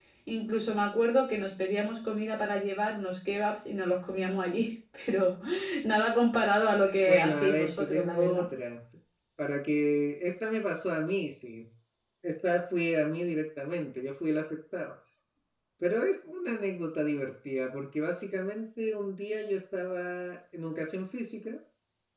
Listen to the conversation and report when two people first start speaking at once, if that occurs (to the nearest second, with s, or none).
7 s